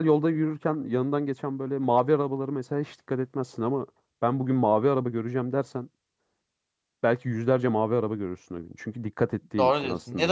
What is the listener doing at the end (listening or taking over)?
taking over